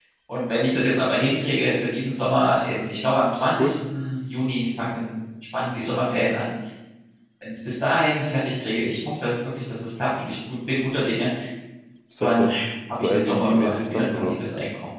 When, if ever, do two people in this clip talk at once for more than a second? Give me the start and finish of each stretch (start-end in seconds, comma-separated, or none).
13.0-14.4